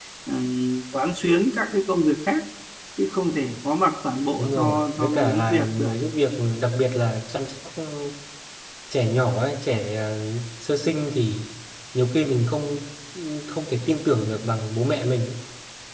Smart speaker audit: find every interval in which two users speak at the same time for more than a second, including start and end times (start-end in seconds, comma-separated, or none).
4.4-6.0